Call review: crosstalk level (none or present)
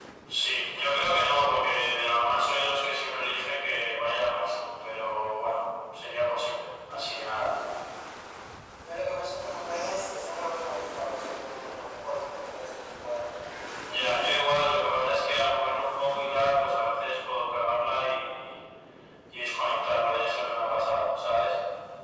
none